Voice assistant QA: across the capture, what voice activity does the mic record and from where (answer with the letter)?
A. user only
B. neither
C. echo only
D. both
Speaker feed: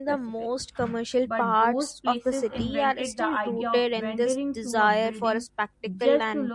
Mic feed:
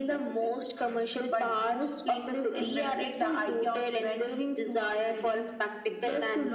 C